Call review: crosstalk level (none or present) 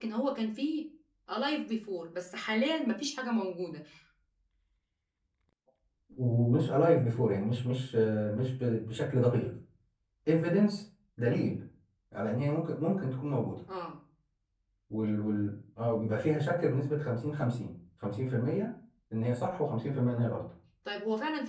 none